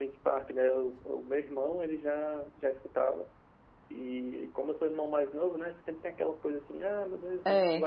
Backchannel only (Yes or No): Yes